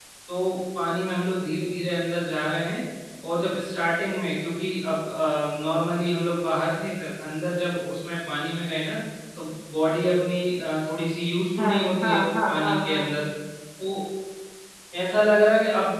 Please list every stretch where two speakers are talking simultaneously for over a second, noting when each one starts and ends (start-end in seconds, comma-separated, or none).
11.6-13.1